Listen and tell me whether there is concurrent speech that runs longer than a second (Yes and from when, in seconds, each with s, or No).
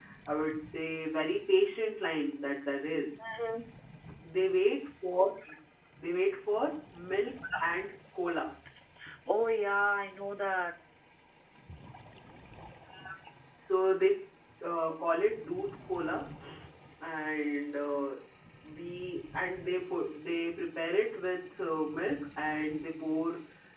No